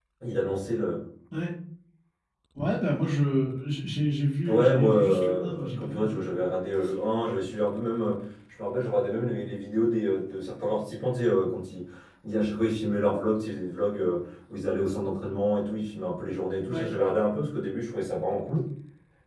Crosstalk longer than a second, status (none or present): present